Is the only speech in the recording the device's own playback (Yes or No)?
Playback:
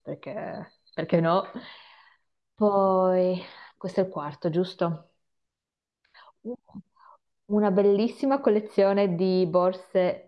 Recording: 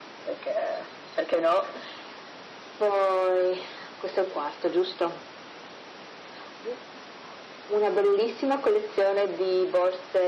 Yes